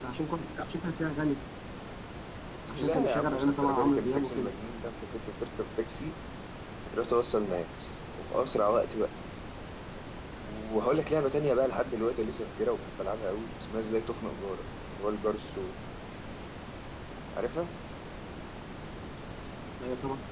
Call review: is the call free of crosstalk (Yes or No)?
No